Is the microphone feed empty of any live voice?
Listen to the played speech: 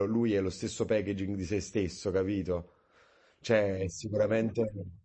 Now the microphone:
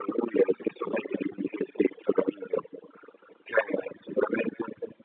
Yes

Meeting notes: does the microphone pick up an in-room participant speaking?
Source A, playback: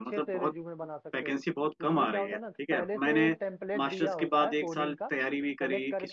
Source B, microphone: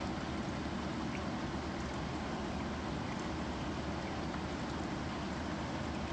No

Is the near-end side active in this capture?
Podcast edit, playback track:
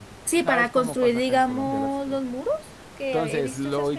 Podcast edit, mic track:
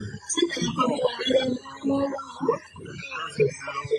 No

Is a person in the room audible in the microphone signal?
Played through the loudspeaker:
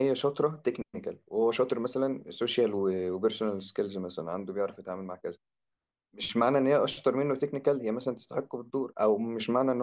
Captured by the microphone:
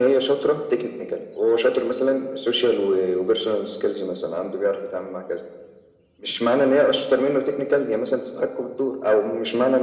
No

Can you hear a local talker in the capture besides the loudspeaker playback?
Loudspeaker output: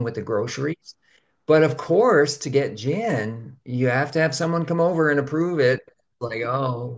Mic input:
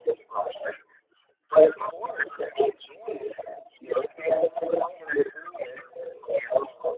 No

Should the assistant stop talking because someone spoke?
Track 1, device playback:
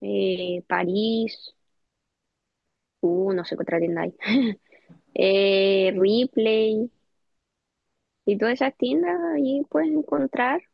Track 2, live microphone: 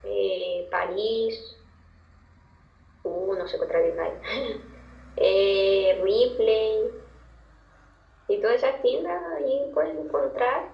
No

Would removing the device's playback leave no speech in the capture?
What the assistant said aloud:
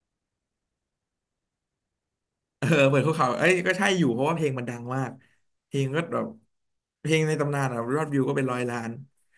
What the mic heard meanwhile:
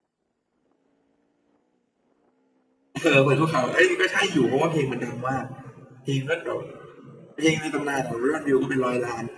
Yes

